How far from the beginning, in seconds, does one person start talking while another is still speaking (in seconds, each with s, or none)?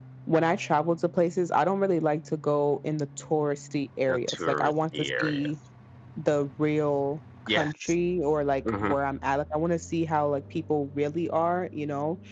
4.1 s